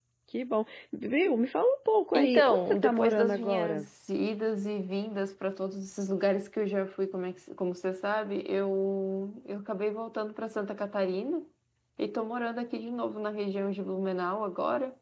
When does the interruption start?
2.1 s

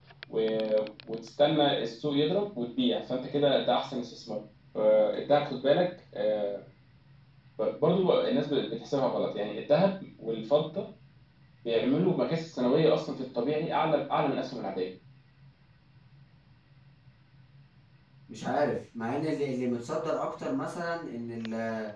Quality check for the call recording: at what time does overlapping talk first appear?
none

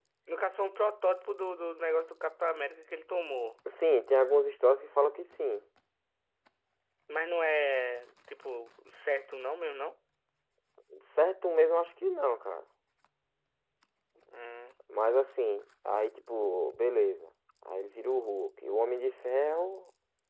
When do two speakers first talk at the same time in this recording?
none

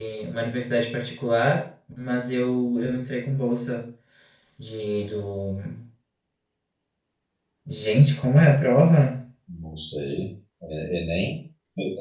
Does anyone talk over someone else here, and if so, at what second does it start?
none

